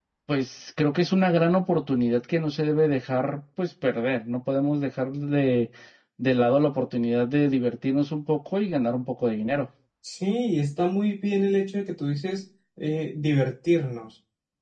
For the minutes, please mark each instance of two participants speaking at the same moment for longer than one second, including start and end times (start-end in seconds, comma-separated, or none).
none